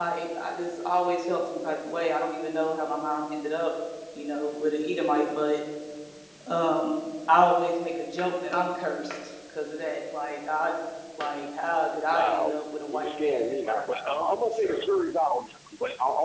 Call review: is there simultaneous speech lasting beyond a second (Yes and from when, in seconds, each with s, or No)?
Yes, from 12.1 s